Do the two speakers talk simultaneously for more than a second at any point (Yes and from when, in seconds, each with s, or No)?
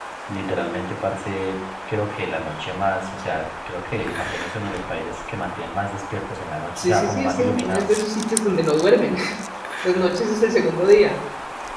Yes, from 6.8 s